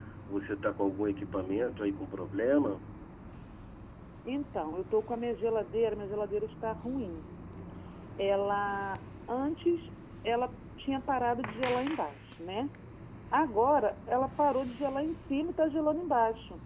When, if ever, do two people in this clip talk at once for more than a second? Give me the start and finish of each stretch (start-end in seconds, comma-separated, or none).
none